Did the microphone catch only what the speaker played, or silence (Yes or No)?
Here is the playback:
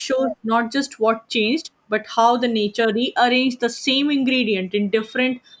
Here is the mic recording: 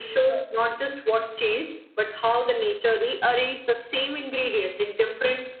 Yes